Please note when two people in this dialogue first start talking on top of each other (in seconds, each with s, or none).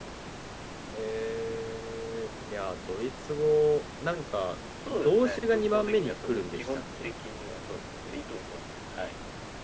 4.8 s